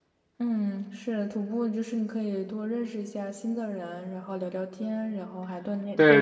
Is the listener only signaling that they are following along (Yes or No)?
No